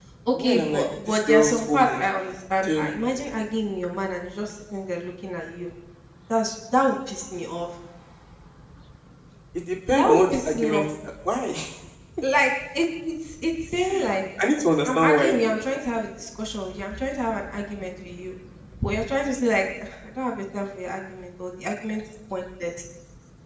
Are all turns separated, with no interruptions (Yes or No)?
No